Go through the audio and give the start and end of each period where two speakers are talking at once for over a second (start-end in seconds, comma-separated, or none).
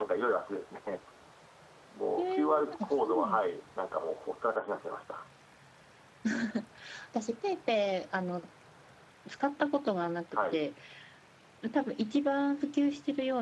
2.2-3.4